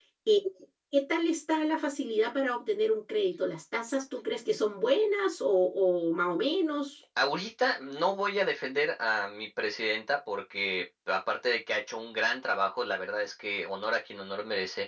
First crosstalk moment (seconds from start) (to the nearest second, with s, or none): none